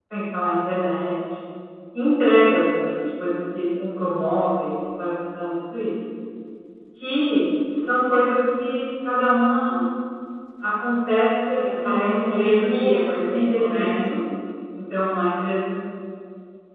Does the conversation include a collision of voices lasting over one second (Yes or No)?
Yes